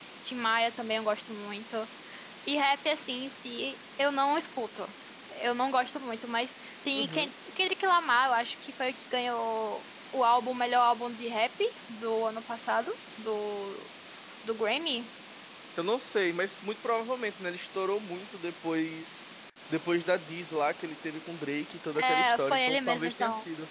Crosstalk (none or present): present